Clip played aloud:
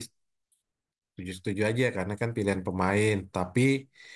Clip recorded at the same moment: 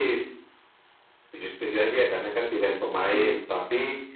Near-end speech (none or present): present